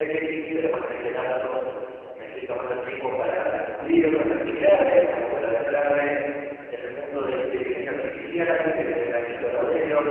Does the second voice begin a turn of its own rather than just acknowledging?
No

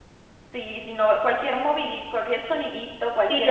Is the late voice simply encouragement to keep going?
No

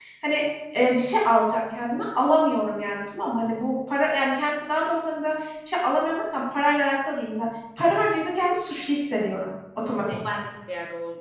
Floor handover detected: Yes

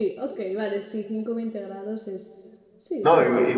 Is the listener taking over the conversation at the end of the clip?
Yes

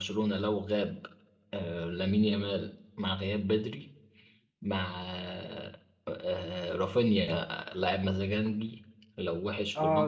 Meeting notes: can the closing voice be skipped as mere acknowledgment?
No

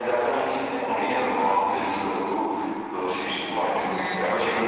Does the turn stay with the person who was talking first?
No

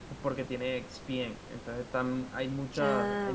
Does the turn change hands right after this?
No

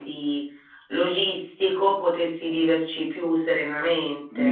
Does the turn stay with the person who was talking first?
No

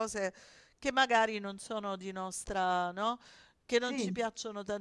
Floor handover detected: No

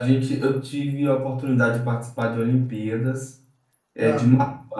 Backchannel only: Yes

